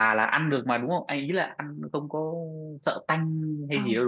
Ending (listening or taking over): taking over